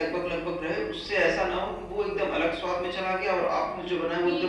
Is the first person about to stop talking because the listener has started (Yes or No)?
Yes